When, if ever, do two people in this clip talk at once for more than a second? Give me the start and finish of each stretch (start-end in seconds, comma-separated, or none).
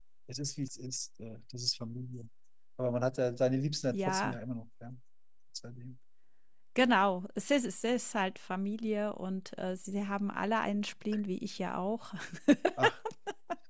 none